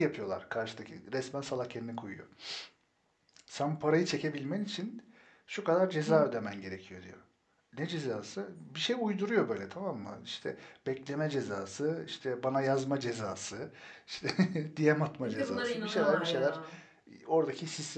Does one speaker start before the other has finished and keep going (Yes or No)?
Yes